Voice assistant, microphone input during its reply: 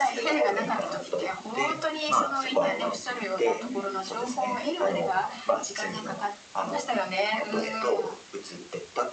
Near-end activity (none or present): present